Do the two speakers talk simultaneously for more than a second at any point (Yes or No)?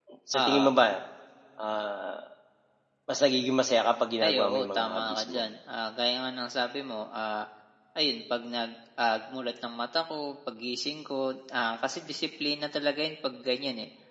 Yes